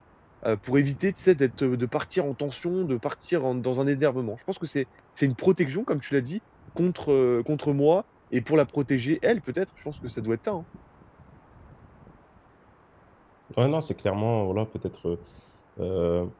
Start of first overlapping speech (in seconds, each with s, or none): none